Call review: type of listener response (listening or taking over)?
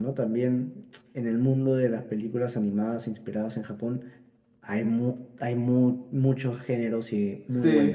taking over